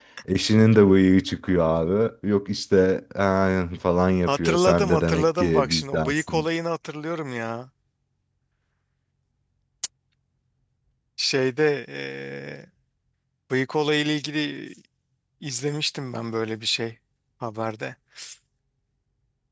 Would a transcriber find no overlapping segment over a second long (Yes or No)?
No